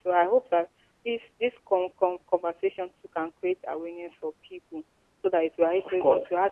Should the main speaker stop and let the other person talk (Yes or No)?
No